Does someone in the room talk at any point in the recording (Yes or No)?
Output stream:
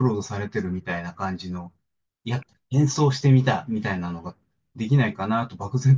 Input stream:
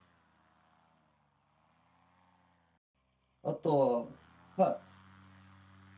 Yes